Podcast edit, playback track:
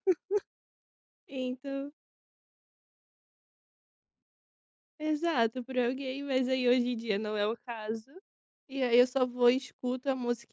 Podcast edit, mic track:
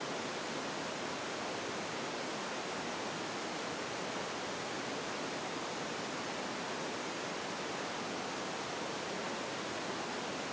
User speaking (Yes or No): No